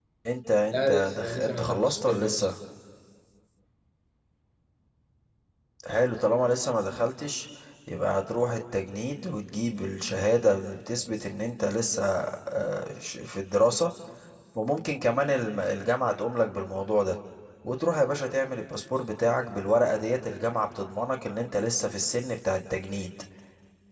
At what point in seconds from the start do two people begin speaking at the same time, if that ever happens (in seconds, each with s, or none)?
0.7 s